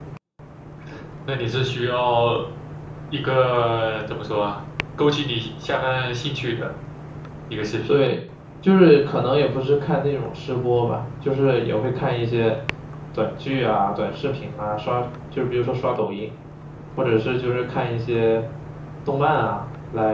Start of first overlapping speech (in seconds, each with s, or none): none